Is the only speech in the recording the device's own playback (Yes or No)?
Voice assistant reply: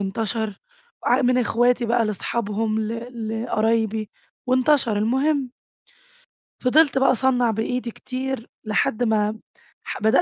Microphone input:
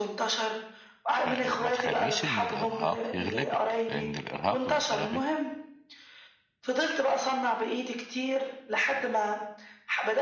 No